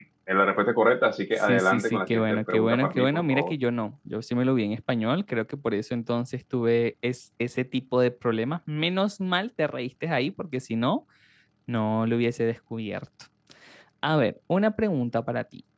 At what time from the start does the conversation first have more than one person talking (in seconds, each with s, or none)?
1.5 s